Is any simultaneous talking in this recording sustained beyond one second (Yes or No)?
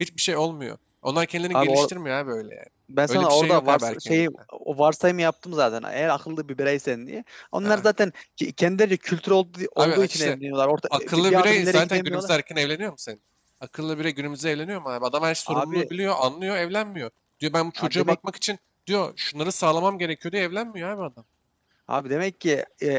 Yes